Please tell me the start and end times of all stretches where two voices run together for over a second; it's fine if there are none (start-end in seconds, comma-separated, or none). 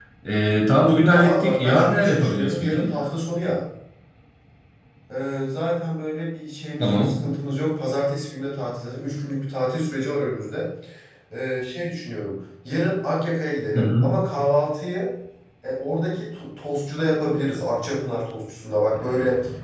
1.1-2.9